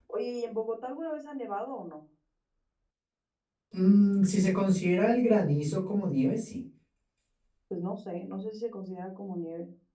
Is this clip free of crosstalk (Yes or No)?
Yes